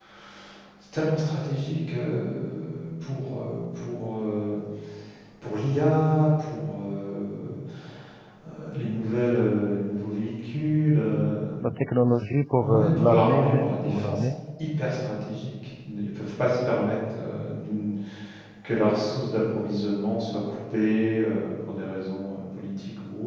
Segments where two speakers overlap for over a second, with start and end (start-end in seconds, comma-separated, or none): 12.6-14.3